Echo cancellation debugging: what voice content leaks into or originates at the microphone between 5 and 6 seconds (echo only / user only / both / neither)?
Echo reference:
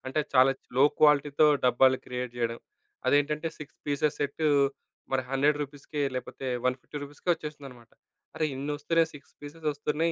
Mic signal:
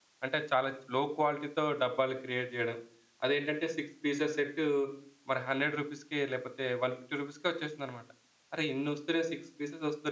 echo only